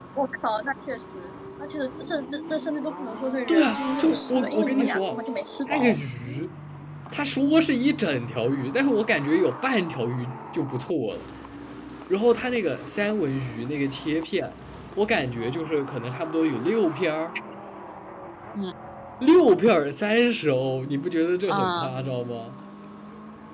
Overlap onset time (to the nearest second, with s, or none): 3 s